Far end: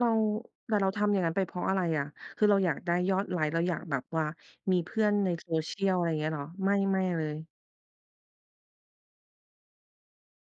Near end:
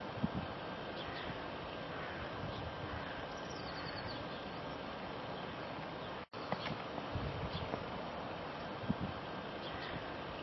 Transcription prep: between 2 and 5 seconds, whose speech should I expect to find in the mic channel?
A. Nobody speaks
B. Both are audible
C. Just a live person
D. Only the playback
A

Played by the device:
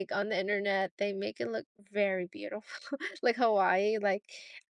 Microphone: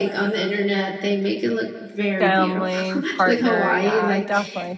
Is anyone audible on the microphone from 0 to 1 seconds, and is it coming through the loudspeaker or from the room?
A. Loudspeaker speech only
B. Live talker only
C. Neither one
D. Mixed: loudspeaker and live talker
A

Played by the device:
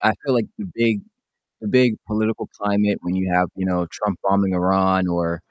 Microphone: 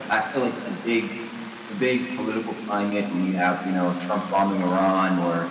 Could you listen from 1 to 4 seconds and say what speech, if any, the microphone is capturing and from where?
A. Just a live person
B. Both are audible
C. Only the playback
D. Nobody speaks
C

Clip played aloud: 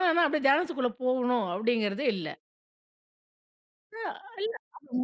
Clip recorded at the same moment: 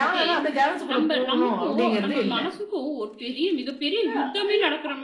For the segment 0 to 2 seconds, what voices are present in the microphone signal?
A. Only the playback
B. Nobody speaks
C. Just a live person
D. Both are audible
D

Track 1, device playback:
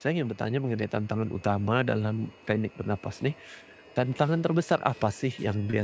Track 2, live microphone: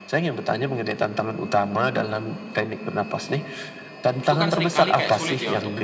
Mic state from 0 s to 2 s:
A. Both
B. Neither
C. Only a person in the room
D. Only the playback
D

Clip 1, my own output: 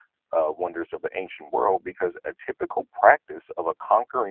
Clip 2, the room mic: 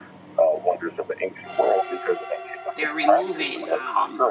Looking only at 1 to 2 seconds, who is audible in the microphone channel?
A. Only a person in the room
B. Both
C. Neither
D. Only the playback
D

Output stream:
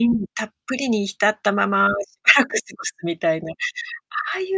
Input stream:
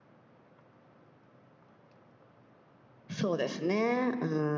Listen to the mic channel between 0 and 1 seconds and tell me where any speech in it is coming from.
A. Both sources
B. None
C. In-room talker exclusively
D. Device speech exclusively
B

